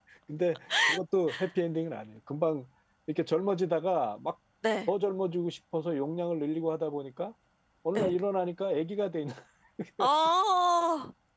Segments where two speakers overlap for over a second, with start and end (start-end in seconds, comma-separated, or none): none